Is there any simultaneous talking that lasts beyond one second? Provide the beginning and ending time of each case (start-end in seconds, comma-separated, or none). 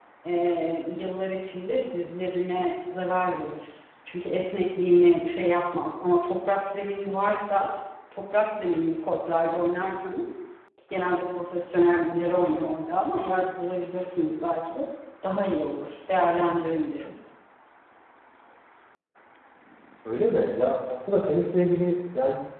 none